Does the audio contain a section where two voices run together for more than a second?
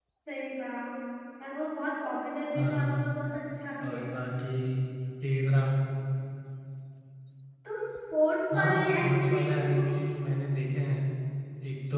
Yes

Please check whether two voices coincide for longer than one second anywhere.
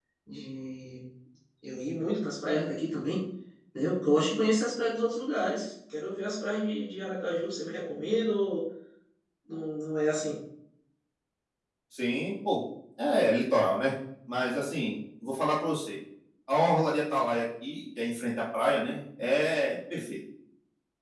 No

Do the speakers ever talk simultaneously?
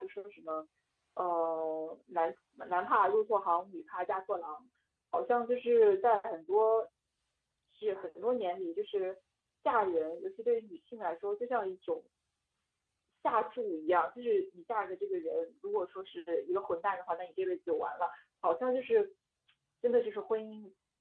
No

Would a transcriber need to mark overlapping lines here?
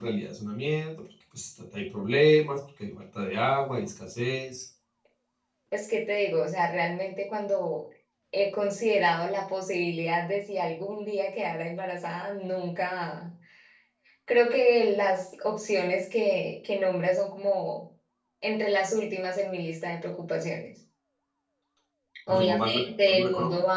Yes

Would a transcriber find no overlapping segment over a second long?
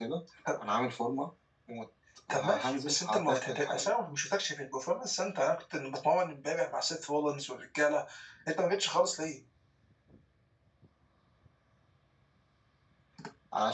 No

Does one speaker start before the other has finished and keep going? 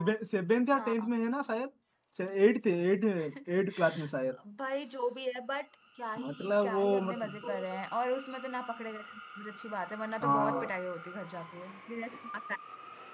Yes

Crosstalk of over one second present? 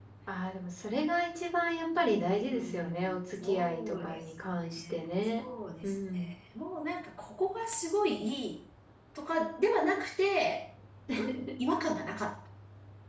Yes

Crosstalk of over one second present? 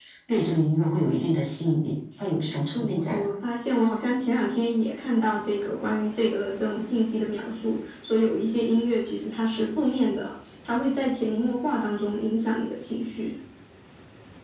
No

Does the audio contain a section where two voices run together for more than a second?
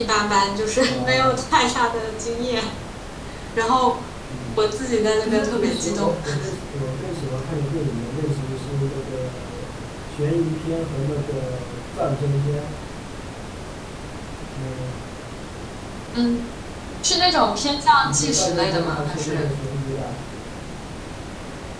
Yes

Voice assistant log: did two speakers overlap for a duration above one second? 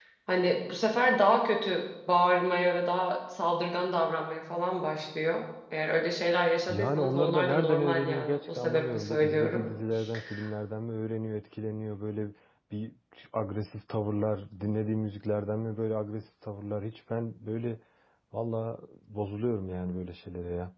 Yes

